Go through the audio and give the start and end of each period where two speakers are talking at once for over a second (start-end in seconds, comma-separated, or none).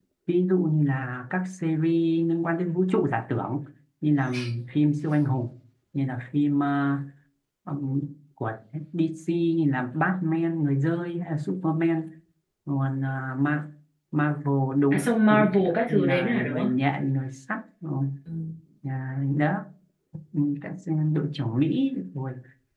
14.9-16.7